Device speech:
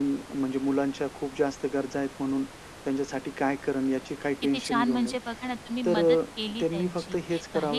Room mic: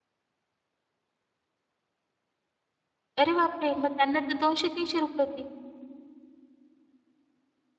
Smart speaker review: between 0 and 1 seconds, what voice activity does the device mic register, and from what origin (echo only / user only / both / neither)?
neither